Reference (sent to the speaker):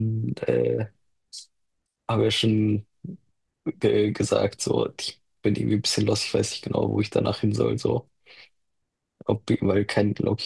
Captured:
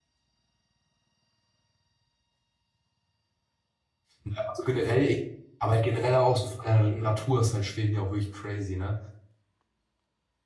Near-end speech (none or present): present